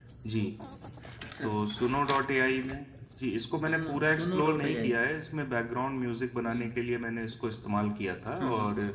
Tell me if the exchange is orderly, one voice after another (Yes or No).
No